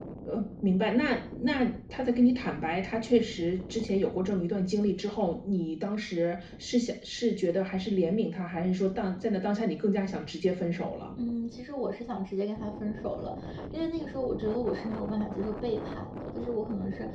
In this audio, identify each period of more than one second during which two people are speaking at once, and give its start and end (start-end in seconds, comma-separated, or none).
none